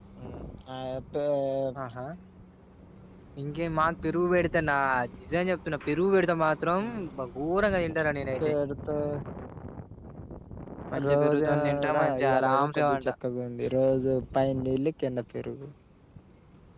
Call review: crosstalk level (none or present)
present